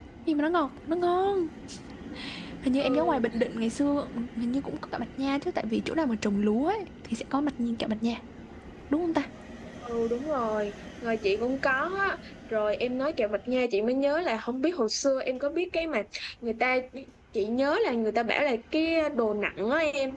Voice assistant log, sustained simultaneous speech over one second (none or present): none